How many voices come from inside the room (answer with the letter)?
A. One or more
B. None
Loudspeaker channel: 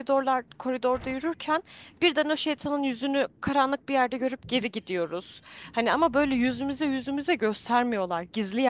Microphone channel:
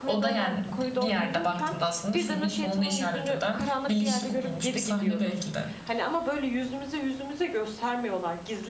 A